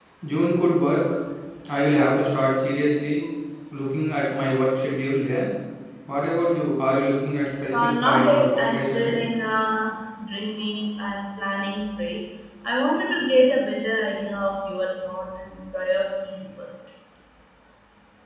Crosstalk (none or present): present